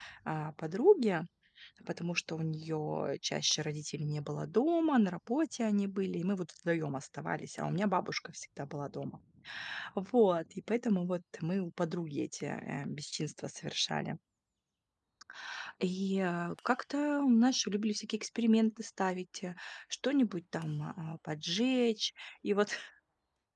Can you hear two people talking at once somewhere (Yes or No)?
No